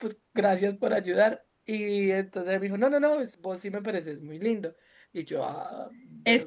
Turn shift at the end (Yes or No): Yes